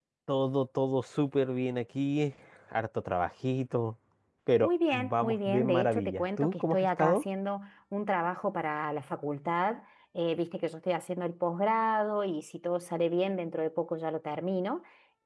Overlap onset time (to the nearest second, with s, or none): 5 s